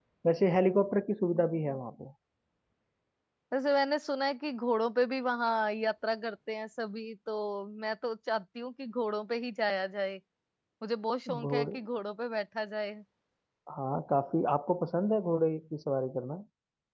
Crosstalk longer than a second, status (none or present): none